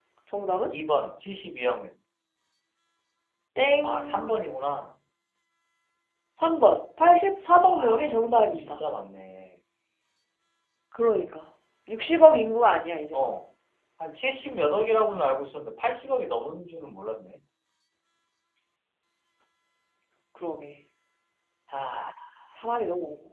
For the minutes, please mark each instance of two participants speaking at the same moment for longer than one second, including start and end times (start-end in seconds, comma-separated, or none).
7.6-8.8